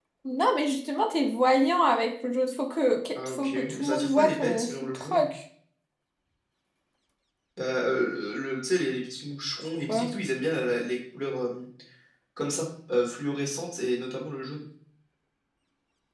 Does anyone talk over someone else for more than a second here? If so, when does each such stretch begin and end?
3.1-5.3

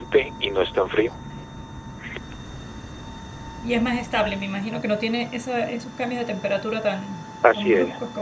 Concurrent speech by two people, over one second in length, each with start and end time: none

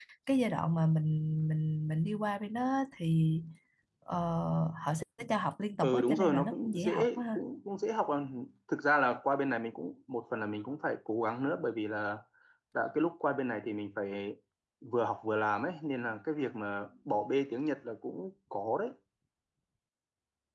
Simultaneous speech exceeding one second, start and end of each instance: 5.8-7.4

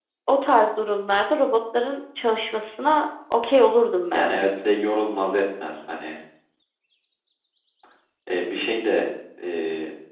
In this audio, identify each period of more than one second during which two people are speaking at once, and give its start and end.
none

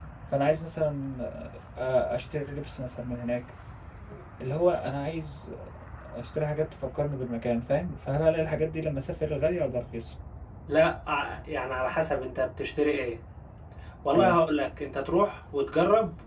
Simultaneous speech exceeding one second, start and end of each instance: none

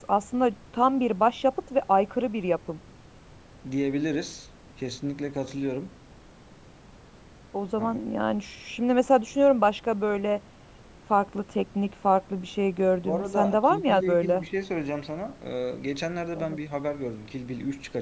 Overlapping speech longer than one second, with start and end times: 13.1-14.4

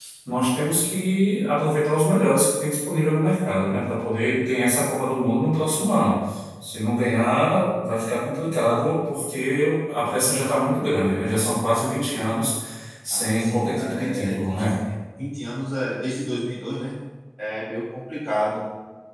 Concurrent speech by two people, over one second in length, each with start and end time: 13.1-14.7

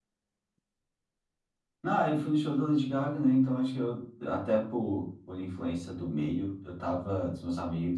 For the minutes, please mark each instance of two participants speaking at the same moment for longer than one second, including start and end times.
none

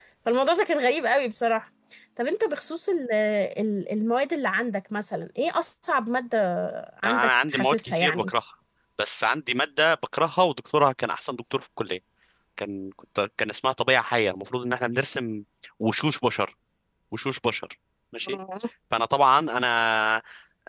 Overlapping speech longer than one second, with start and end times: 7.0-8.3

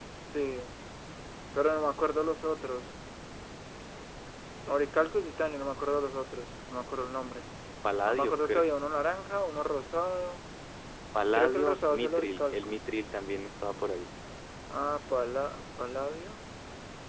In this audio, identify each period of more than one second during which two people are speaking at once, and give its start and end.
11.3-12.8

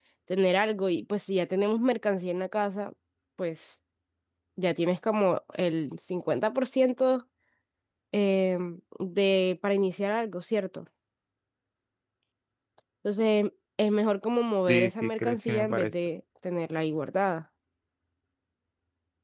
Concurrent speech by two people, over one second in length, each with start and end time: 14.7-15.9

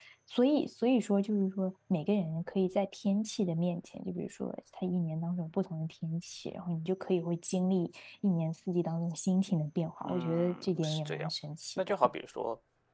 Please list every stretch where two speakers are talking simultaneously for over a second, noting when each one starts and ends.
10.0-11.3

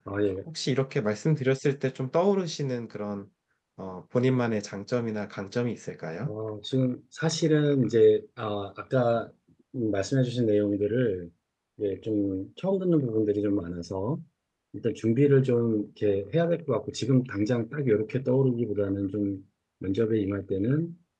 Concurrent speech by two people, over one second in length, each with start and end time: none

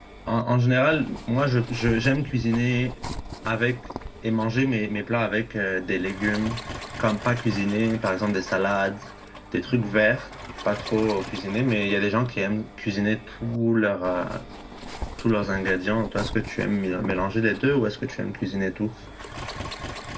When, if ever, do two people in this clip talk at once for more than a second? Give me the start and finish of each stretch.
none

